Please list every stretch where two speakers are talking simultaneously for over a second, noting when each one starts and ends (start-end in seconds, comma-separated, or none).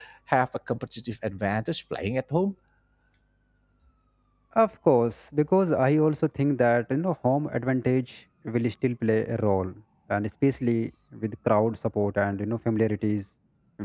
none